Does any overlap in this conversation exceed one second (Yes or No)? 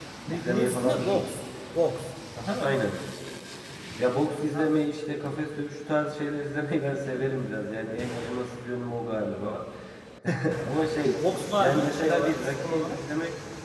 Yes